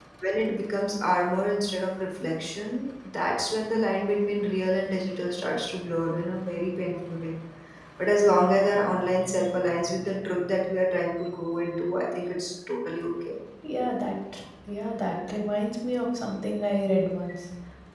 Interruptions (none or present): none